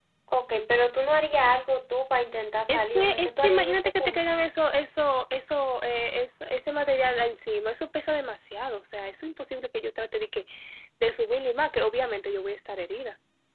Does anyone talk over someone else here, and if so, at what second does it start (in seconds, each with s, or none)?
2.7 s